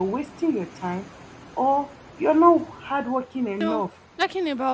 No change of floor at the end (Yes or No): No